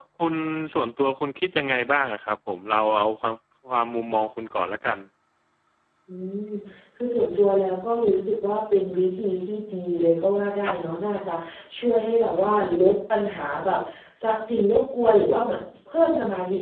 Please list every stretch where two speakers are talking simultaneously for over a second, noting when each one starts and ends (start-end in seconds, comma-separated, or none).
none